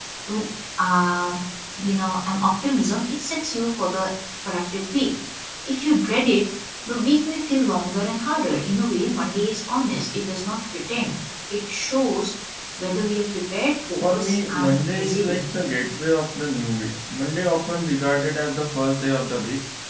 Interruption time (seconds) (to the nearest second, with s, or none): 14 s